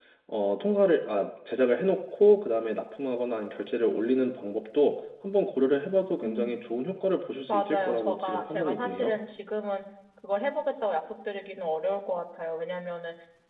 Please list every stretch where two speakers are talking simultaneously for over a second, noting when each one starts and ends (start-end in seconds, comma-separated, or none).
7.5-9.1